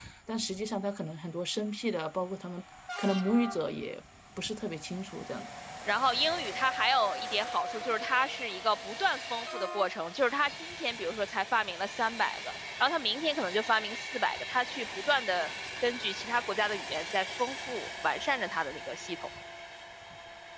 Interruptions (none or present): none